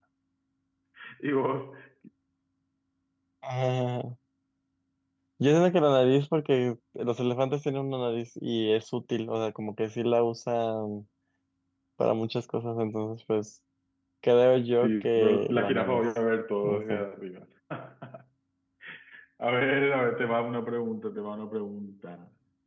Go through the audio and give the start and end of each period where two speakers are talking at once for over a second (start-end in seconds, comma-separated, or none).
14.8-16.0